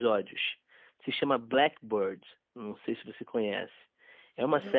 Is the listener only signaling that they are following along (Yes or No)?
Yes